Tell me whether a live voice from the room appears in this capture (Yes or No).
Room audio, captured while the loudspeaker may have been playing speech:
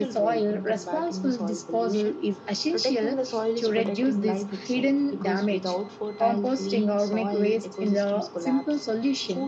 Yes